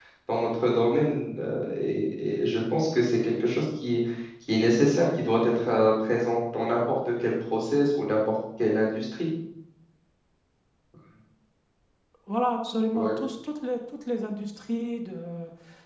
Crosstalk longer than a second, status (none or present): none